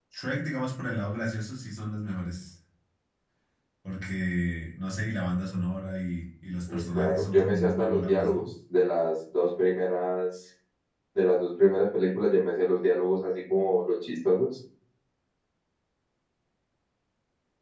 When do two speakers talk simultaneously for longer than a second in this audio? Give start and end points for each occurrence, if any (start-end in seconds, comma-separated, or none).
6.7-8.4